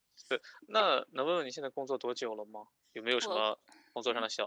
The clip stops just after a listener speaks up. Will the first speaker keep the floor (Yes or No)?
Yes